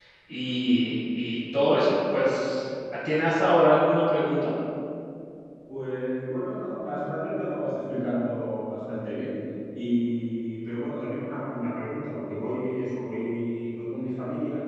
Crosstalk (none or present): none